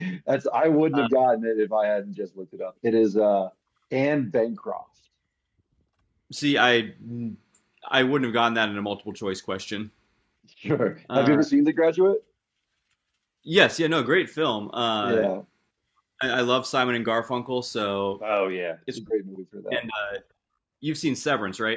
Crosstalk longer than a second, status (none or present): none